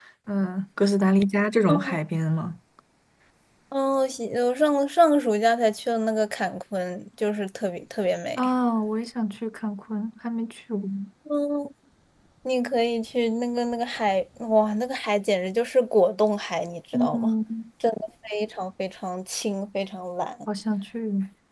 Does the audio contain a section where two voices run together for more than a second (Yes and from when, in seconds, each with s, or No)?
No